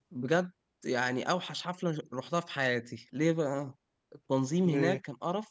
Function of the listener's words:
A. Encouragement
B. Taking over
A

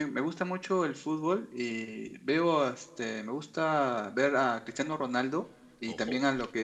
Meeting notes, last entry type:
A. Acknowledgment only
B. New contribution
A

